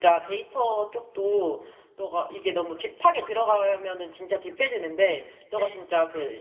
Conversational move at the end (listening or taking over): listening